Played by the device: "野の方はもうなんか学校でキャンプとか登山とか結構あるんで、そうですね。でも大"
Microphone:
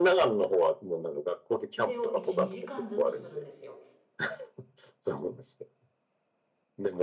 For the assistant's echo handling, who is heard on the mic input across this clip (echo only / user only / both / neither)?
both